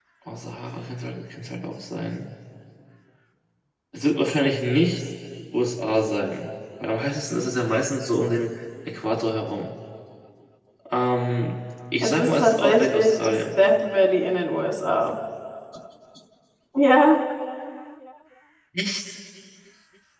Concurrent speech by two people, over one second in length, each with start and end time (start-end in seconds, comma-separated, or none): 12.0-13.6